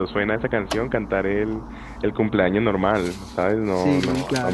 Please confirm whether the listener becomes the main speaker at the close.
No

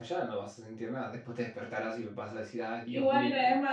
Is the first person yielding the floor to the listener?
Yes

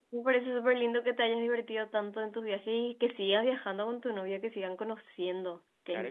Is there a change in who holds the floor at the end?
Yes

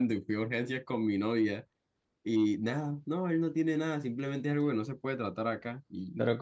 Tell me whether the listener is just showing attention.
No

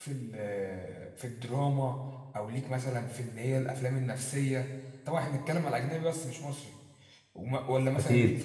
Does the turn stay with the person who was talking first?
Yes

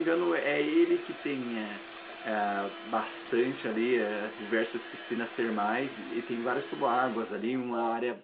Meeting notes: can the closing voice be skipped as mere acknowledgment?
Yes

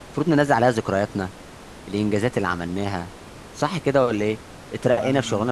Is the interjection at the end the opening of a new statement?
No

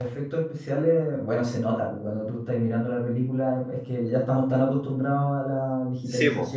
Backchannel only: Yes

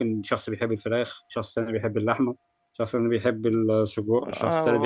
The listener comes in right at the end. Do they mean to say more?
Yes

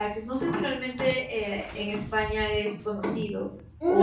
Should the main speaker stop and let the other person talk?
Yes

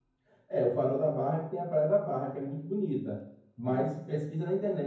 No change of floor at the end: Yes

